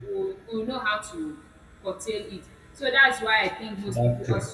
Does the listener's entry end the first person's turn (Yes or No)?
No